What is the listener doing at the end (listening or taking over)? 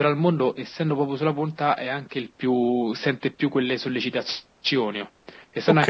listening